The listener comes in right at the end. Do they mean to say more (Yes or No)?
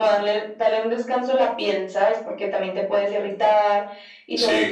No